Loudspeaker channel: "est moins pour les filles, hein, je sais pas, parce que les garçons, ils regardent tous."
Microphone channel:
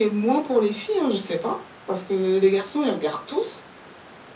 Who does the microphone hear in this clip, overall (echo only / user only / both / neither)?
echo only